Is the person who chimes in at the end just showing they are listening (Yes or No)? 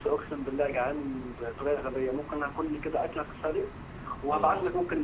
Yes